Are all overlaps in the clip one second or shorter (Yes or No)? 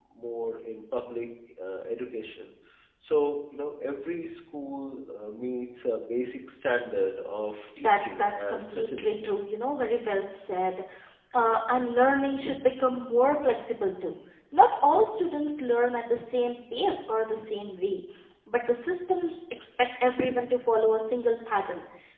No